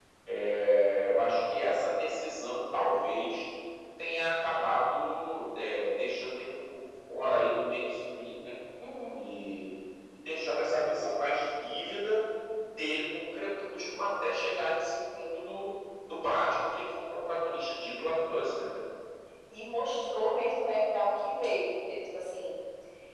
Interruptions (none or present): none